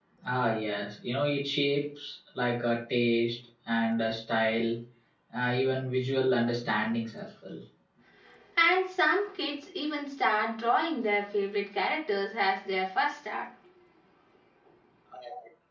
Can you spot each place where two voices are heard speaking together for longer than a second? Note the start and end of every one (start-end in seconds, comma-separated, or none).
none